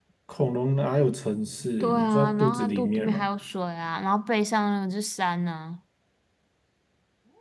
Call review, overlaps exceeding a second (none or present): present